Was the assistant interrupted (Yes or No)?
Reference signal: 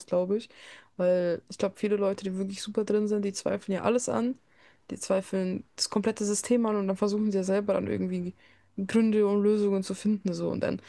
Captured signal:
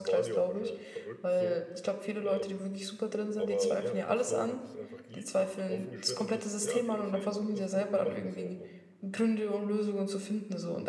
Yes